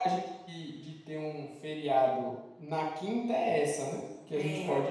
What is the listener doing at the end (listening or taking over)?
listening